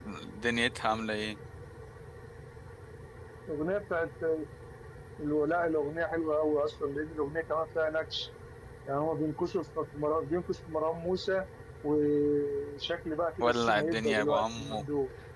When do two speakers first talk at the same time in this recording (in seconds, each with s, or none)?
13.4 s